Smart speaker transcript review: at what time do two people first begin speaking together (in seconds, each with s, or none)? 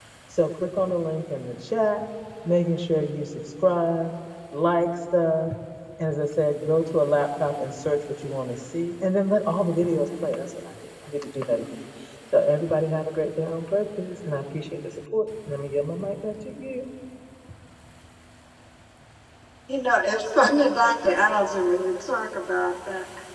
none